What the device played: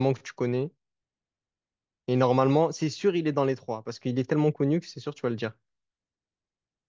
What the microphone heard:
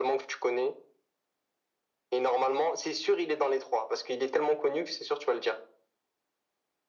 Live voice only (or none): none